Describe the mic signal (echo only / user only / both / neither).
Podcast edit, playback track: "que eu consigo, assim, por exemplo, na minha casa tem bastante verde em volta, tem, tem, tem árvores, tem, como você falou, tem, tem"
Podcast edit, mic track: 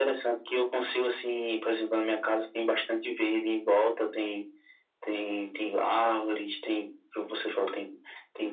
echo only